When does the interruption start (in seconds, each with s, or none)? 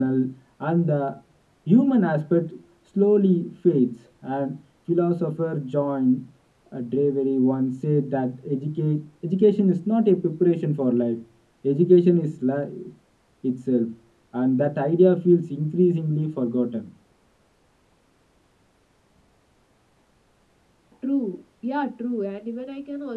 none